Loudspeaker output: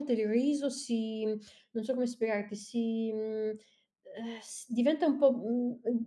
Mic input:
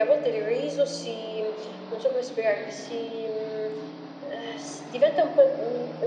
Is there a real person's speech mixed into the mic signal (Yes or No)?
No